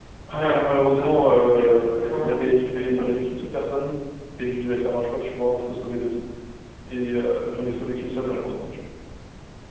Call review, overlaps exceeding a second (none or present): present